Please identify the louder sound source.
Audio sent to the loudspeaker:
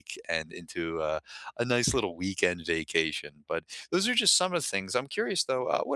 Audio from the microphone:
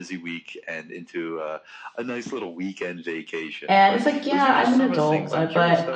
user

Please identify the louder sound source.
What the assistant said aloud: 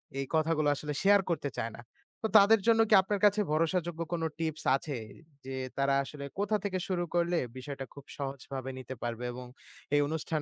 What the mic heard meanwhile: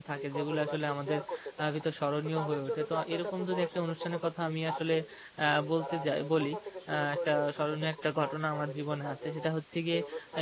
user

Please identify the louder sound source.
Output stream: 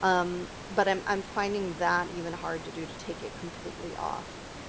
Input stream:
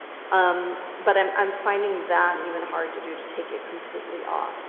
echo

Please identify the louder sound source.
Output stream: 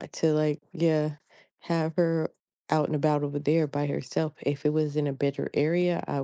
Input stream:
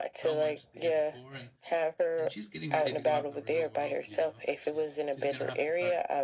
echo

